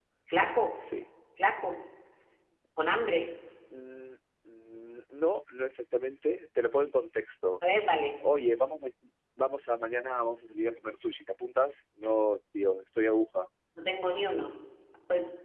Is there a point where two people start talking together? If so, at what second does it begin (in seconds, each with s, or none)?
none